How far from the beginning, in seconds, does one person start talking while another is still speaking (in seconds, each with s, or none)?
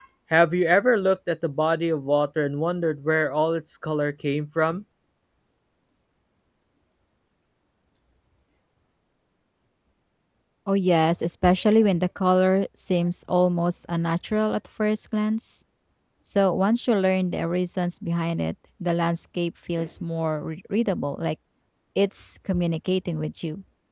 none